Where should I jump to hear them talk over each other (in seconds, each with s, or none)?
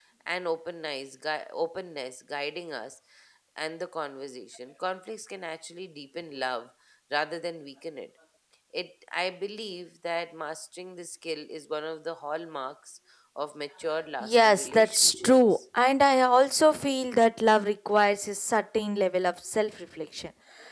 14.2 s